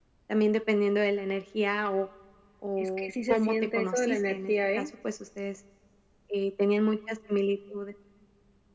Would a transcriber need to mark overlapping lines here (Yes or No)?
Yes